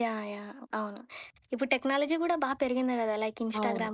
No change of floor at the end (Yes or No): Yes